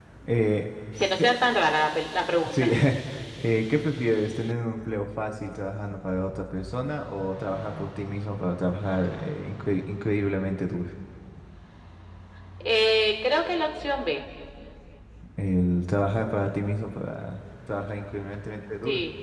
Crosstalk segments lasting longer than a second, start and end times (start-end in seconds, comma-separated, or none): none